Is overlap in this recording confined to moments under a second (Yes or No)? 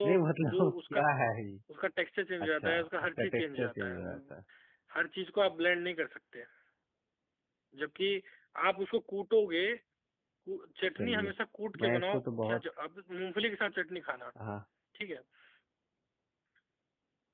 No